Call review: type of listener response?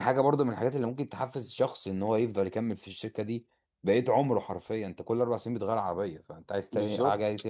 listening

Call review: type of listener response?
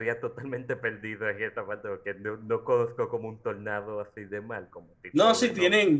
taking over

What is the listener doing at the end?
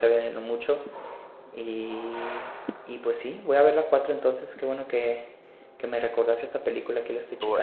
taking over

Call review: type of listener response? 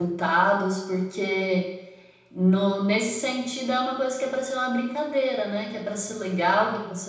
listening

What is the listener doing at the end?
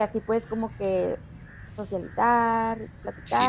listening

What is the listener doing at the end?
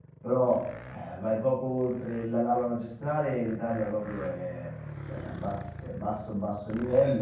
listening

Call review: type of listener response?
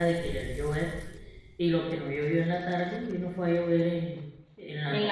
taking over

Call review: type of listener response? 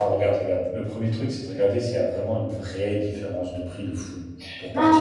taking over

